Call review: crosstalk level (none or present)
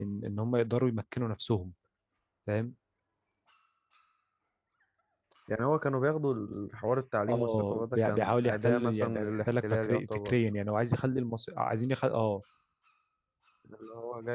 present